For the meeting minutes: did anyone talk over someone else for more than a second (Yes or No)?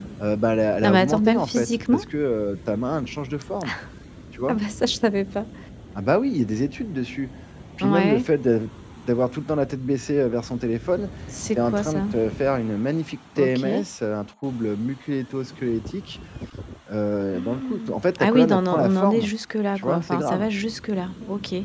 Yes